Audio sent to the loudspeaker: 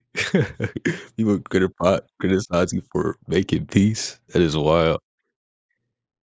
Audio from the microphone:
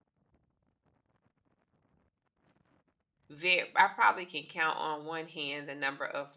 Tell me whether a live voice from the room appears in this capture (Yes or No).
Yes